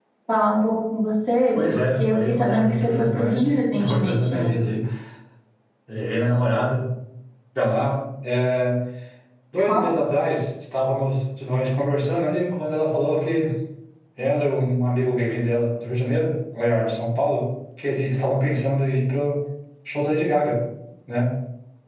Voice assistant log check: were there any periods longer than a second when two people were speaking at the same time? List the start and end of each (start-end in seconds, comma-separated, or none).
1.6-4.5